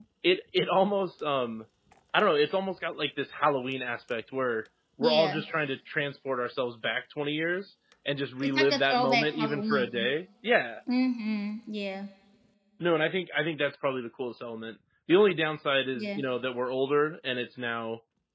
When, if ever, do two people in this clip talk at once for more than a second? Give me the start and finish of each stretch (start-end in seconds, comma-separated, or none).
8.4-10.1